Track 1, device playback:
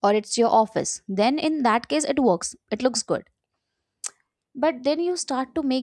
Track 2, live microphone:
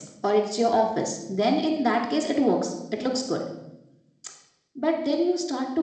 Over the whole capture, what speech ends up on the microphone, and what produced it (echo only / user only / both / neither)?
echo only